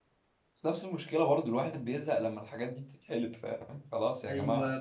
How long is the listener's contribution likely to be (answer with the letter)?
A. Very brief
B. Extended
B